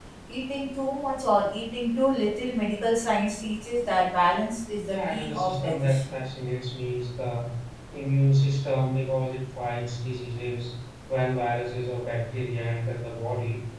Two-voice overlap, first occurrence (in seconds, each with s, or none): 4.9 s